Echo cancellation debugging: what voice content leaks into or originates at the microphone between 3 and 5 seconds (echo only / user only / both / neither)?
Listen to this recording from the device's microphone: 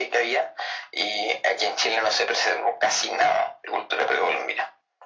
echo only